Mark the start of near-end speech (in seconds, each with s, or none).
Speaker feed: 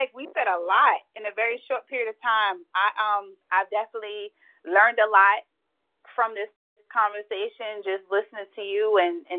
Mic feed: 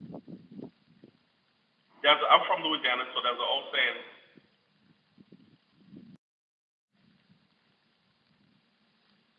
2.0 s